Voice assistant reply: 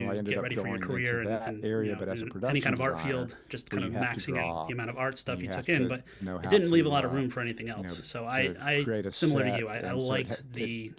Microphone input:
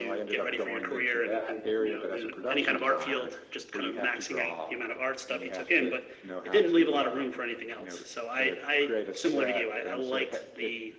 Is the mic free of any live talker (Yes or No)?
Yes